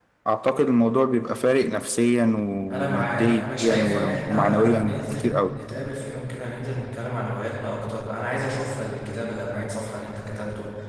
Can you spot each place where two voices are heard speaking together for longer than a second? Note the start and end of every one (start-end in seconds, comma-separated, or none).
2.7-5.5